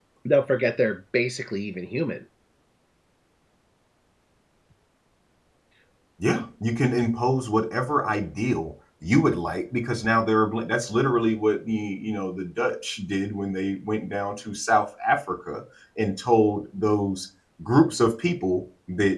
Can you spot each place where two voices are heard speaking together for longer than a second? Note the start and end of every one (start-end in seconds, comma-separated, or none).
none